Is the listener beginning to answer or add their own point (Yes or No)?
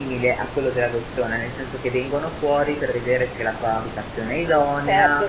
Yes